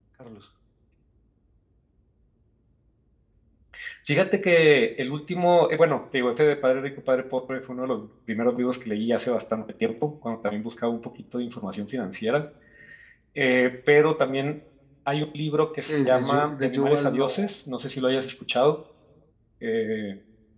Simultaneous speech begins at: 15.8 s

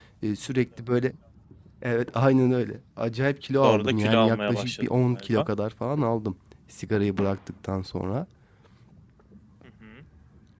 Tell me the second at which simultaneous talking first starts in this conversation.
3.6 s

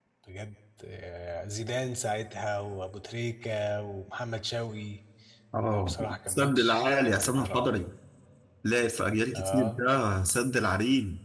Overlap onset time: 5.7 s

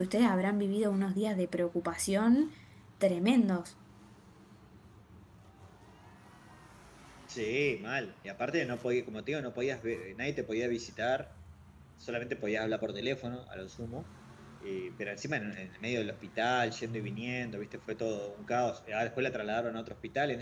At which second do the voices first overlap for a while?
none

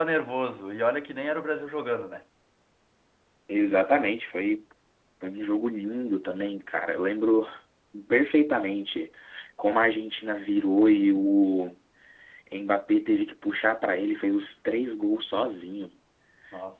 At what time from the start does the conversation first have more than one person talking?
none

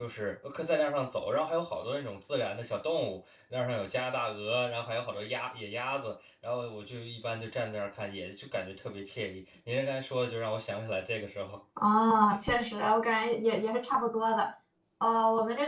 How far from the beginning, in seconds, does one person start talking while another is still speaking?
none

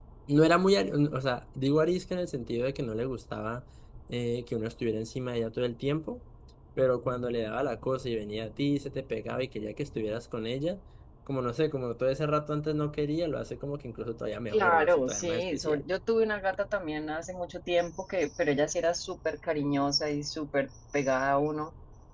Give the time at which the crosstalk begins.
14.5 s

